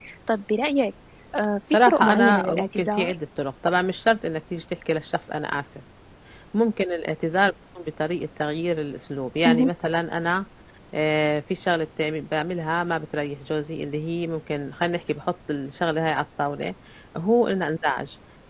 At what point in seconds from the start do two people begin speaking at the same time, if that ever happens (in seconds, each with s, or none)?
1.8 s